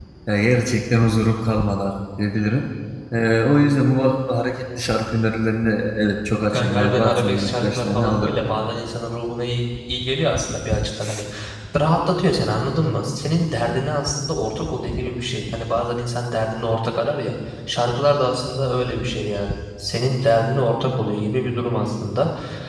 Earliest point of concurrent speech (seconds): 6.5 s

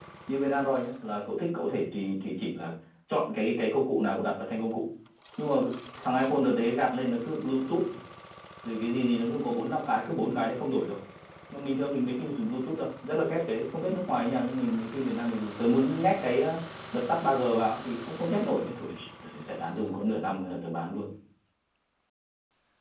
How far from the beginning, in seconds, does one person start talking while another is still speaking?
none

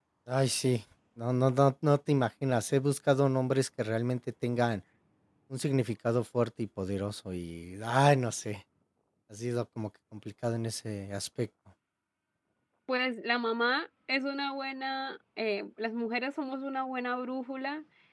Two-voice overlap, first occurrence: none

